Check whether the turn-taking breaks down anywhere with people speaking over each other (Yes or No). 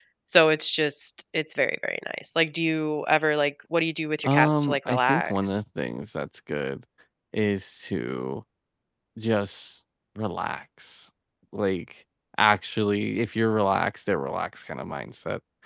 Yes